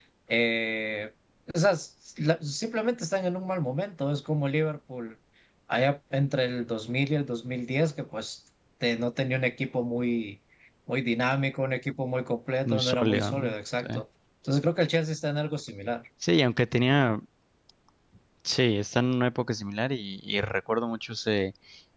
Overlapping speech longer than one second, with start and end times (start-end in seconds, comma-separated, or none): 12.7-13.8